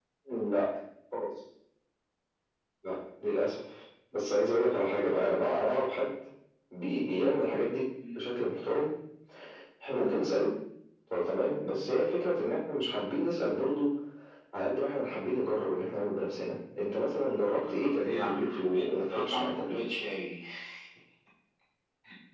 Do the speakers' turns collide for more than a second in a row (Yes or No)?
Yes